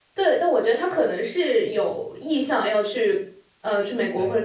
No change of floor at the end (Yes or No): No